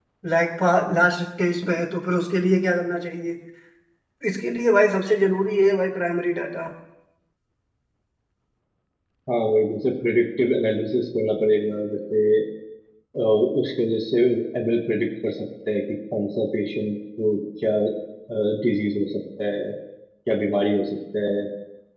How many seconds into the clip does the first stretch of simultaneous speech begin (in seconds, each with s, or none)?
none